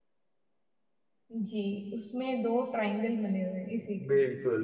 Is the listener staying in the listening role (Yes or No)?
No